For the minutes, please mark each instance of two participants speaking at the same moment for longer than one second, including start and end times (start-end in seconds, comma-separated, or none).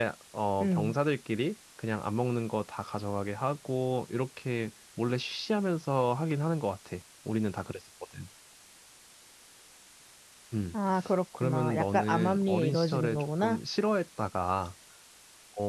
11.4-13.6